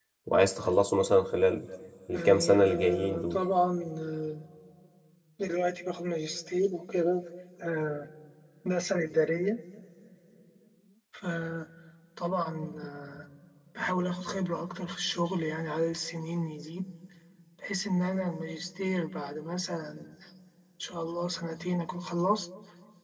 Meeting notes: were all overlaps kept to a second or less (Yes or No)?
No